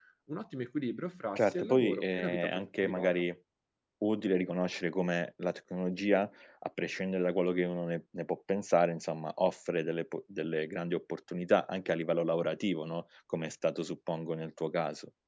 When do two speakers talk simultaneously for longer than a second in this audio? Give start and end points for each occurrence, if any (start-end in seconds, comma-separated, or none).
1.4-3.1